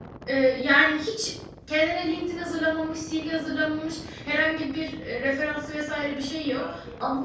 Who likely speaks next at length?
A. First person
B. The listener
B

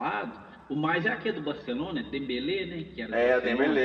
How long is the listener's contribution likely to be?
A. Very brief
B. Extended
B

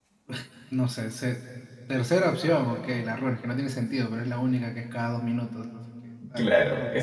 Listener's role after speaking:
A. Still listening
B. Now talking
B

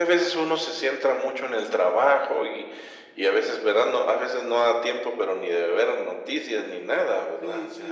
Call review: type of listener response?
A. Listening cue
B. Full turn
B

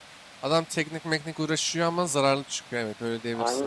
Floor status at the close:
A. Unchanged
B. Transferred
B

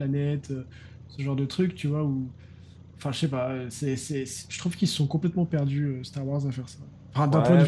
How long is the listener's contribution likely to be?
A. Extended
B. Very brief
A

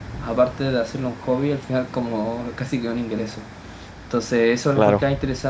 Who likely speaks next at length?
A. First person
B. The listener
A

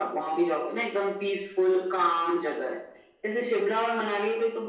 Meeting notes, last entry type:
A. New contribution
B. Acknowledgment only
B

